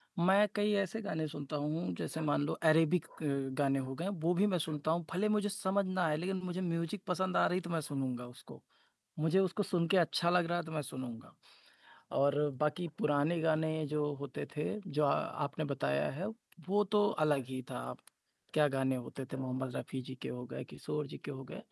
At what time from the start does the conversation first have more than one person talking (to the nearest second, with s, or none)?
none